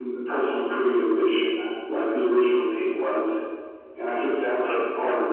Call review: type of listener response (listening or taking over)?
listening